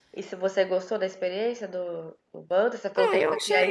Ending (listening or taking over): taking over